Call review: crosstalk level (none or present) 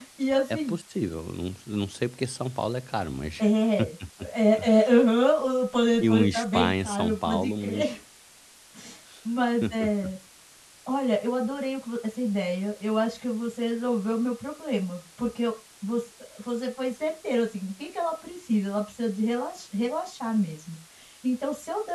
present